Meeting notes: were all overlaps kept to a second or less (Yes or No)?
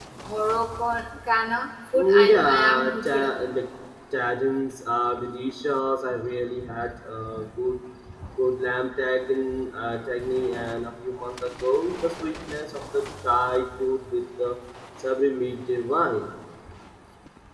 No